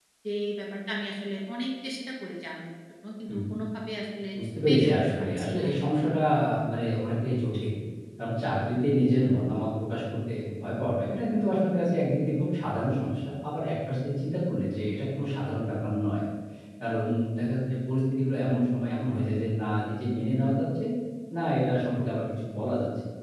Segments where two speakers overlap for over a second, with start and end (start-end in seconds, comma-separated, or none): 4.7-6.0